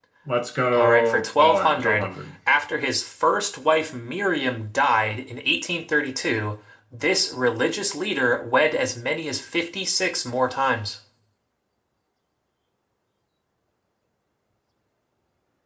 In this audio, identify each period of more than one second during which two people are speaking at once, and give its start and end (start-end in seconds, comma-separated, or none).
0.7-2.1